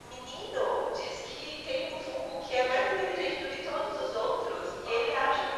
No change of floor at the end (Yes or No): Yes